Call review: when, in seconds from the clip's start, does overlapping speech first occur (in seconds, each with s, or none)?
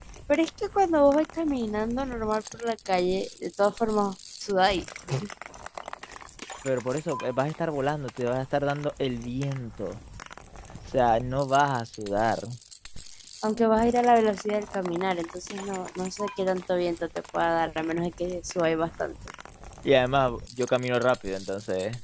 none